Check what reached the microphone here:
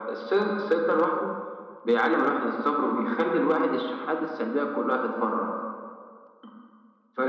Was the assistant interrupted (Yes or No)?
No